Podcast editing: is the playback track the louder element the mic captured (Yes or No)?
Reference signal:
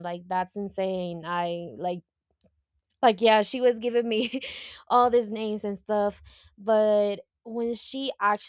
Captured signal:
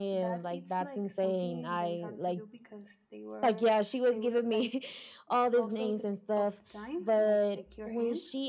Yes